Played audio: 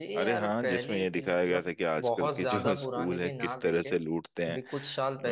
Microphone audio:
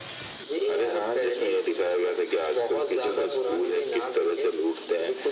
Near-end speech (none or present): none